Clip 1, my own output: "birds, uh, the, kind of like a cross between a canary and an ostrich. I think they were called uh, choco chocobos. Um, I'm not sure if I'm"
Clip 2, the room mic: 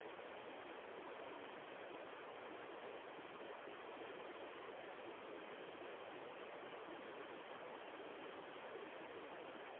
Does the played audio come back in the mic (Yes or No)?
No